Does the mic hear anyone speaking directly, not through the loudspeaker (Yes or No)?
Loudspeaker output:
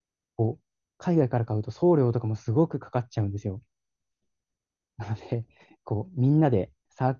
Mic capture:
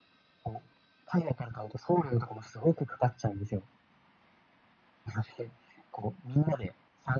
No